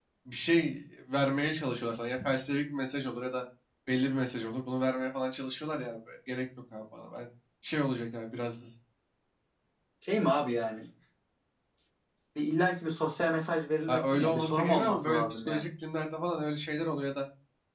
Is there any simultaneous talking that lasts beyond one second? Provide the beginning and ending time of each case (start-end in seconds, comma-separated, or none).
13.9-15.6